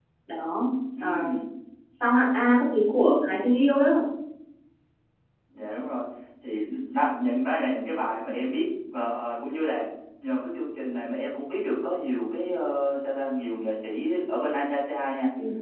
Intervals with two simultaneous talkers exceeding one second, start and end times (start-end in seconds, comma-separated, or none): none